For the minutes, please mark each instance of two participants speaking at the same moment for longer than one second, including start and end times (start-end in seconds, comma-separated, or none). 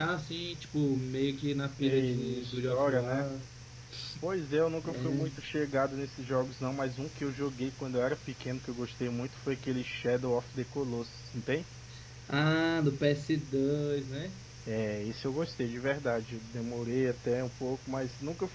1.8-3.2